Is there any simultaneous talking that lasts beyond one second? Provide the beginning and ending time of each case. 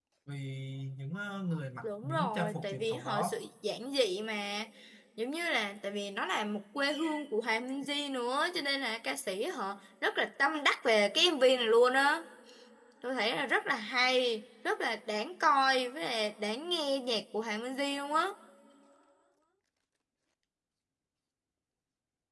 1.8-3.4

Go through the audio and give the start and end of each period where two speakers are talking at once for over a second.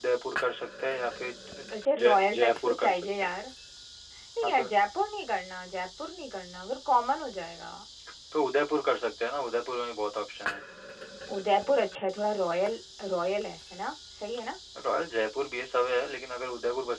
1.7-3.3

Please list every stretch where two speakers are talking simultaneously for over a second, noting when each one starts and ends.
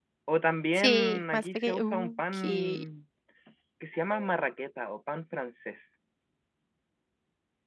0.8-2.8

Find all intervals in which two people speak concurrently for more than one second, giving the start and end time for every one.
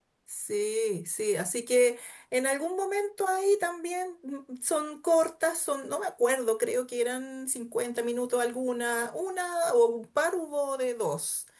none

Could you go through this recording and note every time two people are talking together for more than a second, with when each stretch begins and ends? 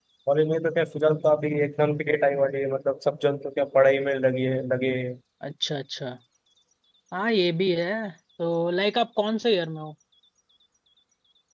none

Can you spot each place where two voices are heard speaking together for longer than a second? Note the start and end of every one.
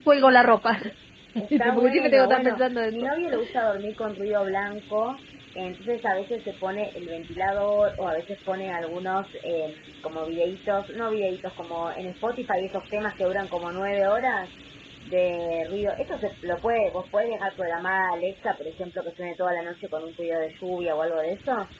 1.6-3.1

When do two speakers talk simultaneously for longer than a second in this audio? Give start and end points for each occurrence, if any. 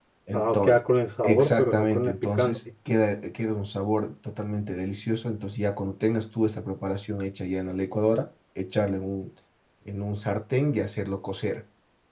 1.2-2.6

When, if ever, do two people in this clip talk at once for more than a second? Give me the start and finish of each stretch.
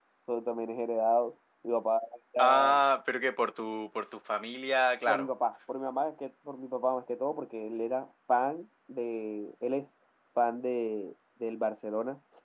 none

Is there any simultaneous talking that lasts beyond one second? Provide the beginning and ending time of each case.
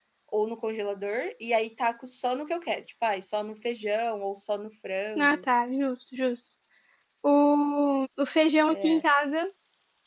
none

